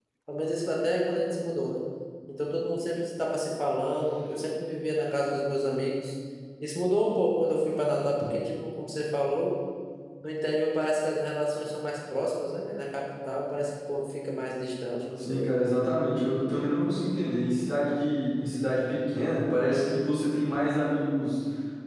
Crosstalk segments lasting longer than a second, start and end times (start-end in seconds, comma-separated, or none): none